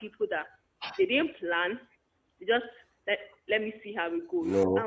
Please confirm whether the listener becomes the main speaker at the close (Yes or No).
No